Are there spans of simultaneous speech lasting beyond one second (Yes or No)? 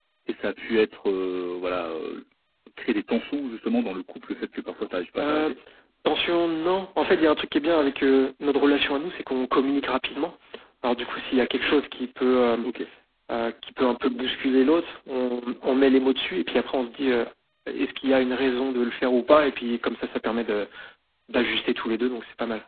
No